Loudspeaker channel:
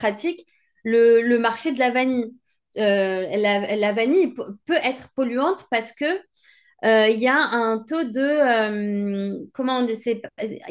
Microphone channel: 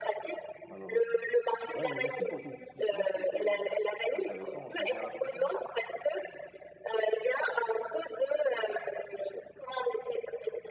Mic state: both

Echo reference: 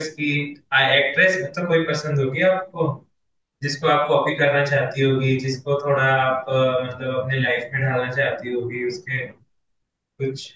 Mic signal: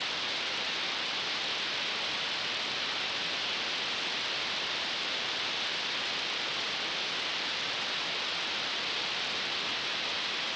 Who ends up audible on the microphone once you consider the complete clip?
neither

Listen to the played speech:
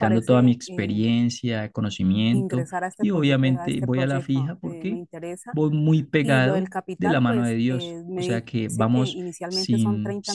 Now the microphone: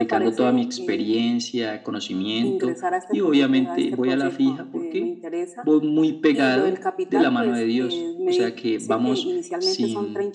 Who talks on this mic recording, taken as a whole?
echo only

